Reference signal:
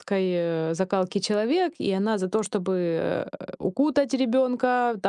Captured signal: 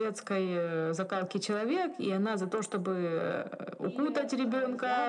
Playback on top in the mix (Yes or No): Yes